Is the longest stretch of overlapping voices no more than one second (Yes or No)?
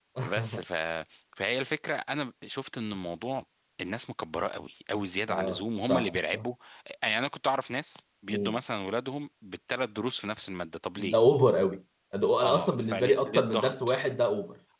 No